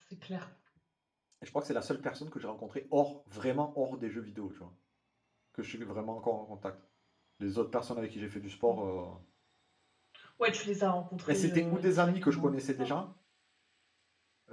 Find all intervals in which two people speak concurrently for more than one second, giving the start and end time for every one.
11.3-12.9

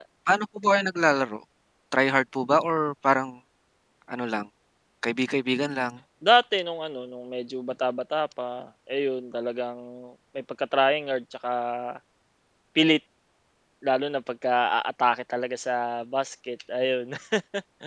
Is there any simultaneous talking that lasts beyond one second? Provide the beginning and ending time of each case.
none

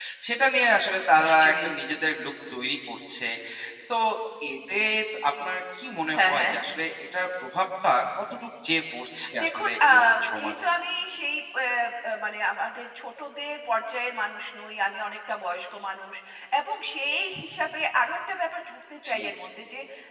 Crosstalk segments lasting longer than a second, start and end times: 9.4-10.7

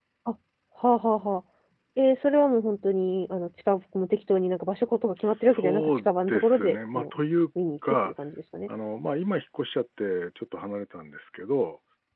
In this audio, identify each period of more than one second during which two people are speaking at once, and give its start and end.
5.2-7.0

